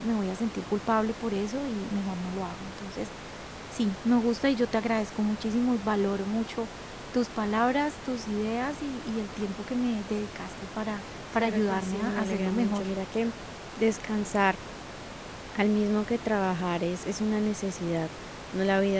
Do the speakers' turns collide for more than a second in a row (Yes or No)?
Yes